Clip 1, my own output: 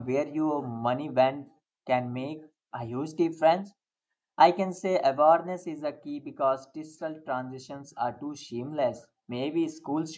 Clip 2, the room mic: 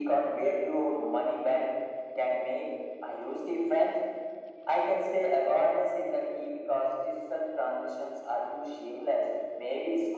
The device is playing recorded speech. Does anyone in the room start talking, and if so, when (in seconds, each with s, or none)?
none